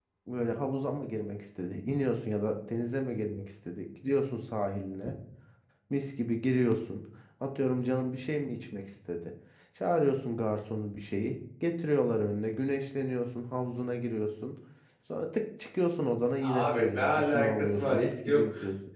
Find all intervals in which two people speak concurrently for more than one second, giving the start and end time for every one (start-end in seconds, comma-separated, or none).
16.4-18.4